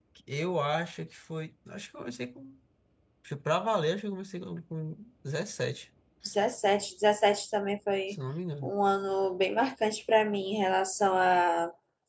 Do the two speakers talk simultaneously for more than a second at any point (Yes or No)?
No